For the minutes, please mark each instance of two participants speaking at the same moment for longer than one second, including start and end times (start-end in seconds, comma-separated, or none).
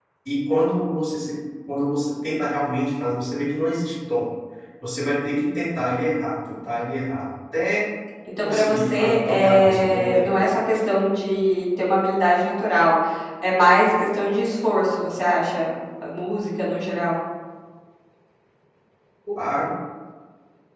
8.4-10.6